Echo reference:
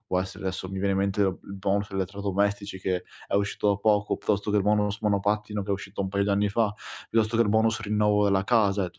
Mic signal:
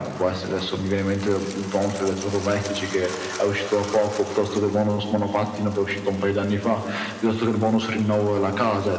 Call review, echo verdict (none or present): present